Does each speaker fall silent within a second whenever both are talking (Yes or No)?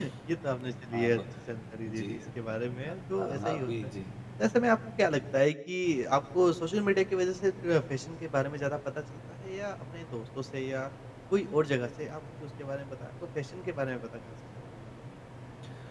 No